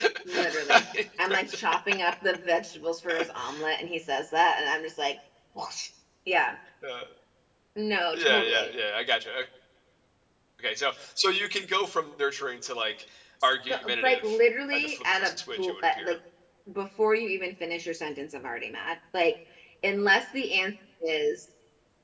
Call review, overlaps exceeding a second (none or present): present